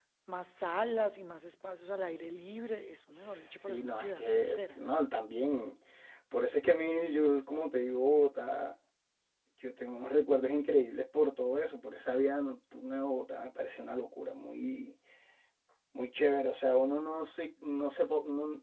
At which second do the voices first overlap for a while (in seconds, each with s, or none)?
3.2 s